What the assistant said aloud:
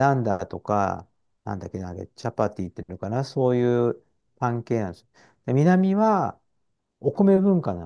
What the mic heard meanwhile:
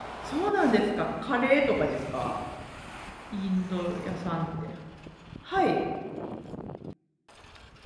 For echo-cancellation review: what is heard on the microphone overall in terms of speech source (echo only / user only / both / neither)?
user only